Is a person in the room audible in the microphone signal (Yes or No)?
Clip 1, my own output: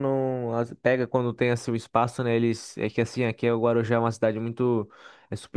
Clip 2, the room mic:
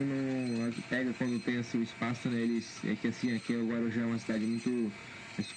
No